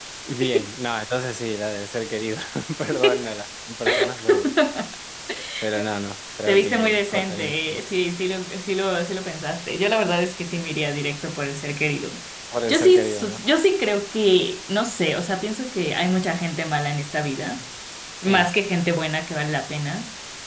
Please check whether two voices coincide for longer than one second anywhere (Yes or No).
Yes